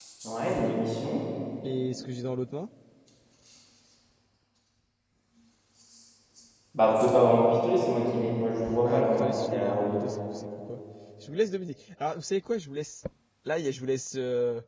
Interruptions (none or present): present